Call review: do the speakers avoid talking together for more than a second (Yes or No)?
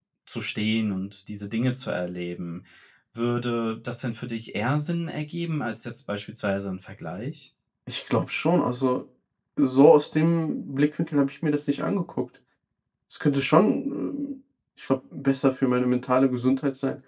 Yes